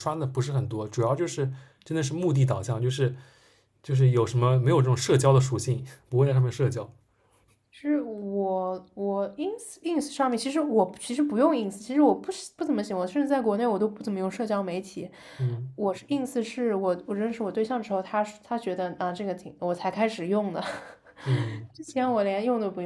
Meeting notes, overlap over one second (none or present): none